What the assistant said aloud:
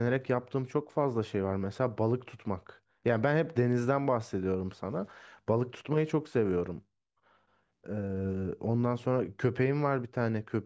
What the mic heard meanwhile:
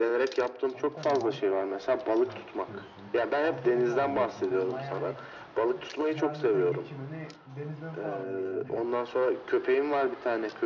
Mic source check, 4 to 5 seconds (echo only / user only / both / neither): both